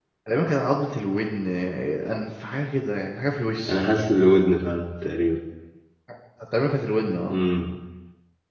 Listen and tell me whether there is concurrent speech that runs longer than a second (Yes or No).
No